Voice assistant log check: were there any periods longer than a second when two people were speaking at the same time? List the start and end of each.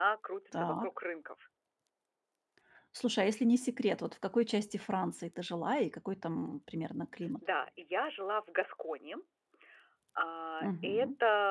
none

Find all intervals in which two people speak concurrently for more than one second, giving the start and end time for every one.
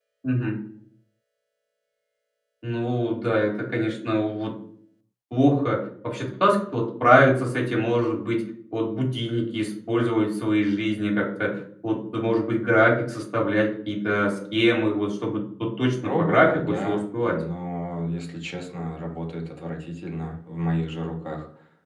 16.0-17.4

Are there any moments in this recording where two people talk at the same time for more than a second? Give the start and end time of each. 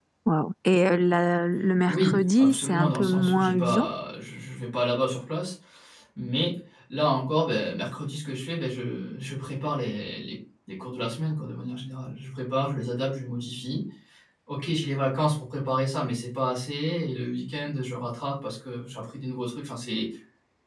1.9-3.9

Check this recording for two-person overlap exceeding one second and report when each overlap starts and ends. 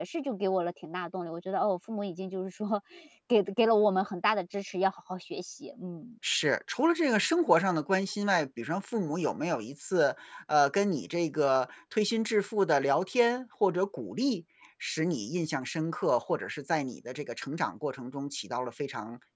none

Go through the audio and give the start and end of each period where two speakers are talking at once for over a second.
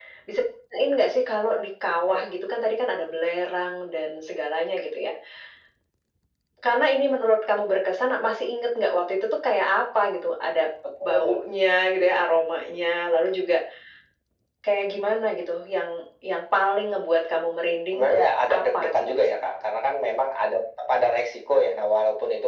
17.9-19.3

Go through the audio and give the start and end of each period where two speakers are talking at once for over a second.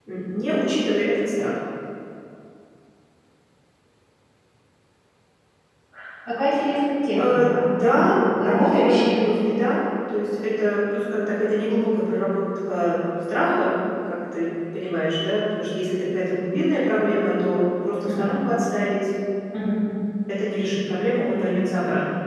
7.2-9.2

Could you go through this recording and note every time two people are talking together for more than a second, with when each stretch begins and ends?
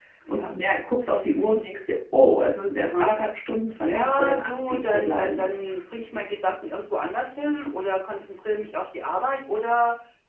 3.8-5.8

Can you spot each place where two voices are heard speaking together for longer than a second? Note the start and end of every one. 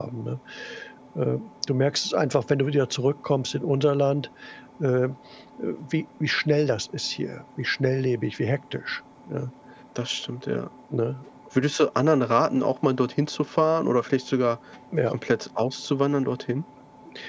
none

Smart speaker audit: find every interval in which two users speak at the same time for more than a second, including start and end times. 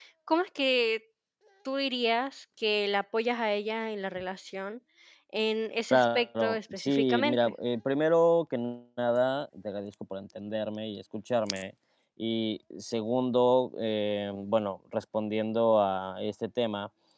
5.9-7.5

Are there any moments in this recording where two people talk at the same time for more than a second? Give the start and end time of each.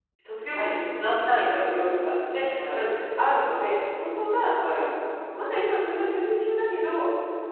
0.5-1.8

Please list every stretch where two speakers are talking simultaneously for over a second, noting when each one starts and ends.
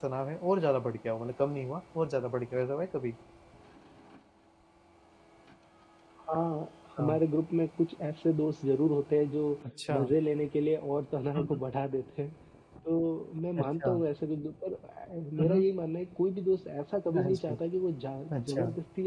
none

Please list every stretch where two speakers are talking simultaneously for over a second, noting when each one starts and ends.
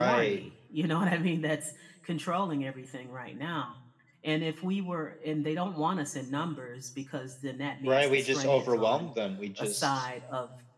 7.8-9.1

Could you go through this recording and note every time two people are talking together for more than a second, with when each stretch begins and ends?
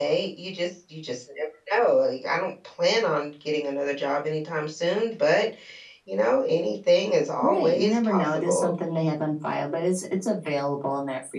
7.4-8.7

